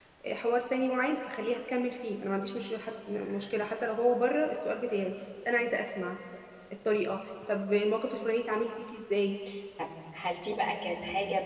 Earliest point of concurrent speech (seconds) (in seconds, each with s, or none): none